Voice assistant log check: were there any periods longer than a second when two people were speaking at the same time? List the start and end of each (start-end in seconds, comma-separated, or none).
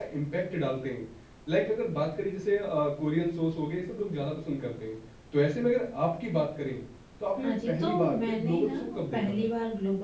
7.4-9.4